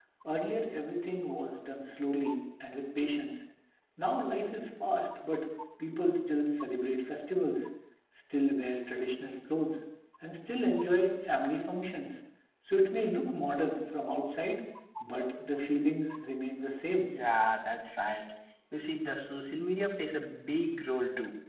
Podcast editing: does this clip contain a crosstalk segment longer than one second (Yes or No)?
No